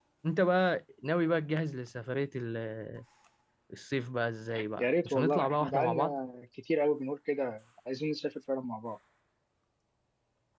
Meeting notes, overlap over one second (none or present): present